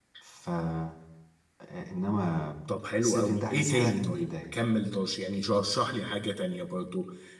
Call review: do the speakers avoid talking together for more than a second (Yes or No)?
No